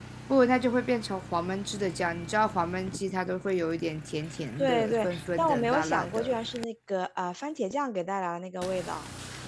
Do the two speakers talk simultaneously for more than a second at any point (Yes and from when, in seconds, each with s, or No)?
Yes, from 4.6 s